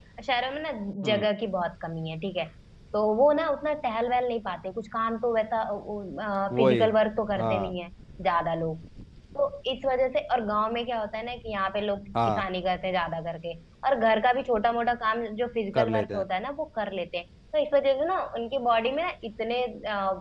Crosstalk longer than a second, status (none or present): none